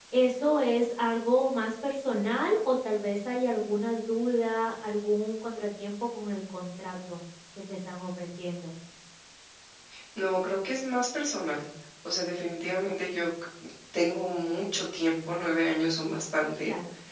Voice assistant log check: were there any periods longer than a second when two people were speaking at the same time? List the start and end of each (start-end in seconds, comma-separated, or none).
none